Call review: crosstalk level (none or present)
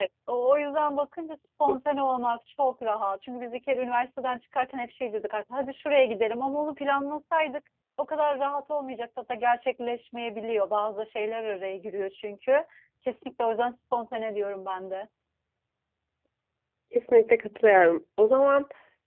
none